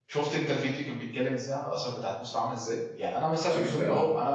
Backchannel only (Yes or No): Yes